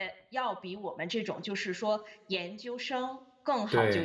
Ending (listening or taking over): listening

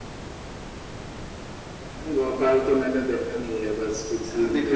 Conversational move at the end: taking over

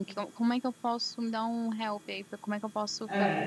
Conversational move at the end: taking over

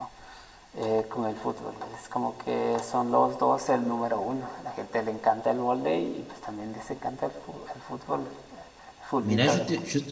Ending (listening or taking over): taking over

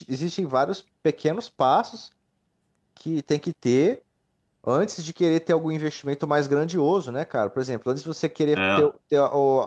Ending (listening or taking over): listening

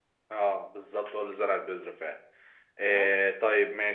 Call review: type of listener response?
listening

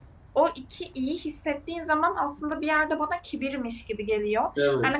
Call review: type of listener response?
listening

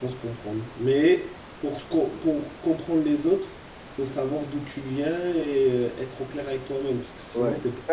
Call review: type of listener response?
taking over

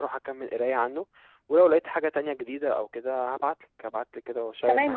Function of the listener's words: taking over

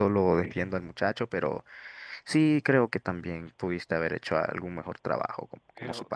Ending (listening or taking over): taking over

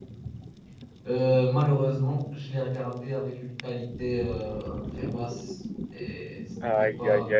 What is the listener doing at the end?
taking over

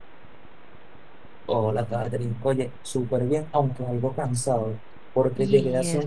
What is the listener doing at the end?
listening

